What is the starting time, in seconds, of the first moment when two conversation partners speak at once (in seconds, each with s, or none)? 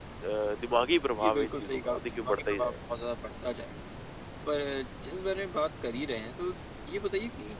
1.2 s